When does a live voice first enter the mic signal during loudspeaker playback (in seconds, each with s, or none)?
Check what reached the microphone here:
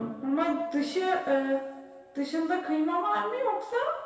none